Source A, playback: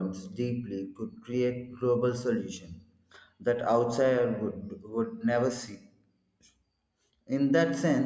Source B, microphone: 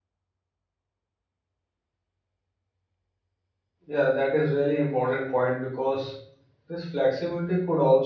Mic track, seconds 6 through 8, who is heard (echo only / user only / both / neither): user only